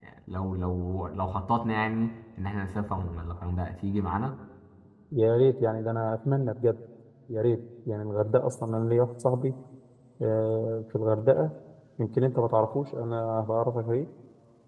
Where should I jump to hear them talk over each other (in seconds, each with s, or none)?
none